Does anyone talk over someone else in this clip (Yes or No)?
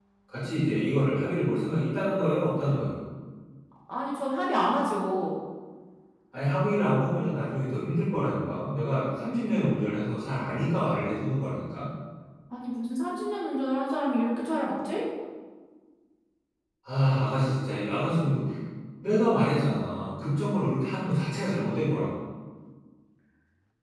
No